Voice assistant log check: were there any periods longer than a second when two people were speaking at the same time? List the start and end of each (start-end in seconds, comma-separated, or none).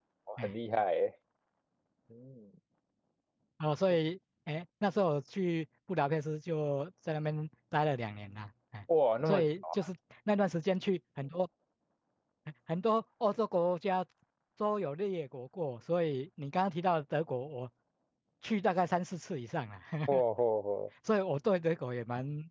none